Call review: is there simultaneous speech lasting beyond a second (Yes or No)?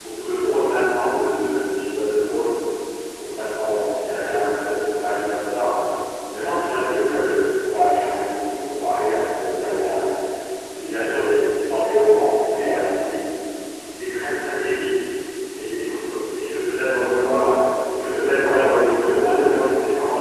Yes